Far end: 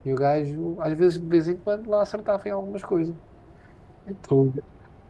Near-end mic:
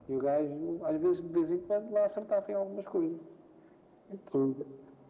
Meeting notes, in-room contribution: none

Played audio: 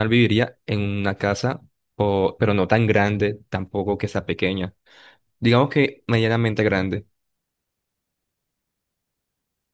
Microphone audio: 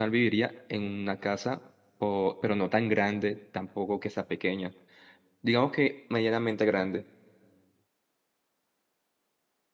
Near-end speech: none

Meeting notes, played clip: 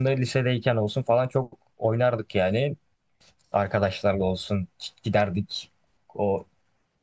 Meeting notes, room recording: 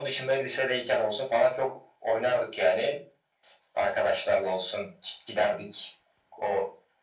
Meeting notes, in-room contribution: none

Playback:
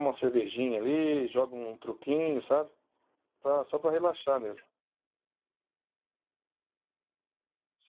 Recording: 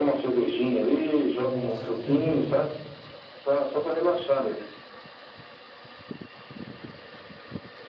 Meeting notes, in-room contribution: present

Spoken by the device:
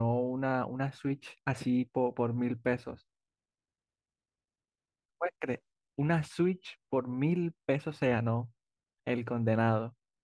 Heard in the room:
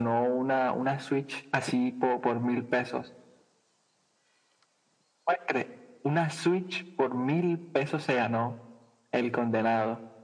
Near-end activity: none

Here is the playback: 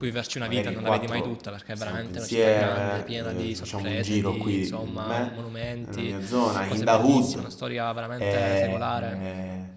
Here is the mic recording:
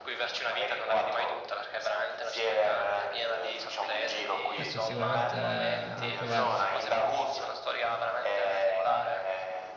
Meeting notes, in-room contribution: present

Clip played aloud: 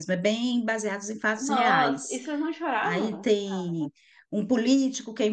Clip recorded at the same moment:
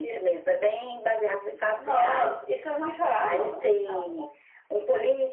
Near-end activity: none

